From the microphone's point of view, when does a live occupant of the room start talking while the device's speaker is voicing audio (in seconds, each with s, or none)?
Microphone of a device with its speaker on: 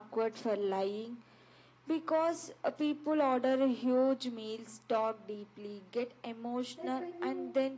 6.8 s